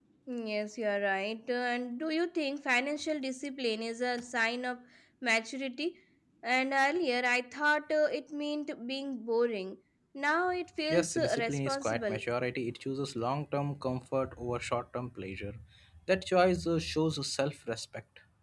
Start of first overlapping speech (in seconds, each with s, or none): 10.9 s